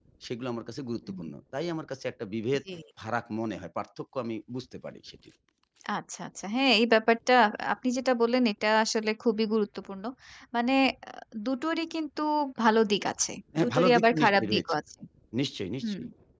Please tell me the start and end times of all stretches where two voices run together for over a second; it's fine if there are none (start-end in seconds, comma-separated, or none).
13.6-14.8